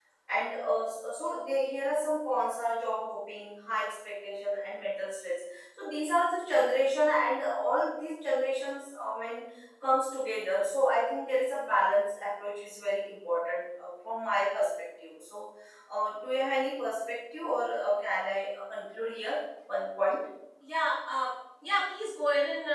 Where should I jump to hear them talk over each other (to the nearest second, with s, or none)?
none